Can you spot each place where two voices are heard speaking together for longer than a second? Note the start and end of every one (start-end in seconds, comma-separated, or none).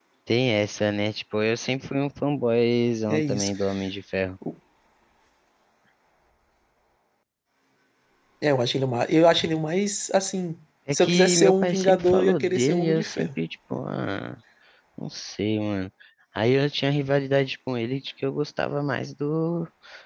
11.0-13.3